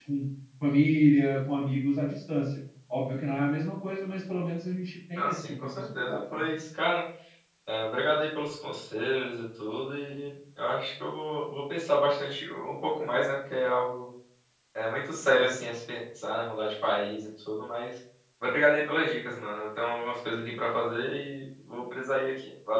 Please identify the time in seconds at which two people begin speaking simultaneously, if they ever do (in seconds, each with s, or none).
5.2 s